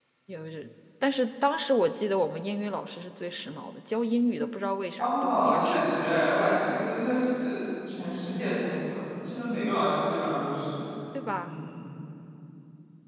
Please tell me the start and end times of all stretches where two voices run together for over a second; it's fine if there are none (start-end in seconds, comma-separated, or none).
5.0-6.2